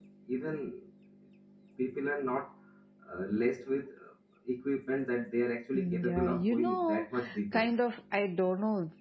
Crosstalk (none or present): present